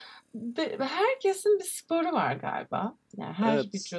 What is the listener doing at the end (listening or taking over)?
listening